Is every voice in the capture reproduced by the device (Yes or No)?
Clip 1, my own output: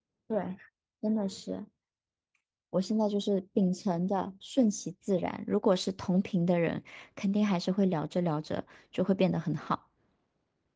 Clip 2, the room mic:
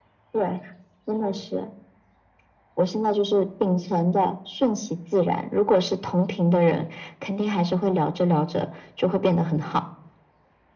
Yes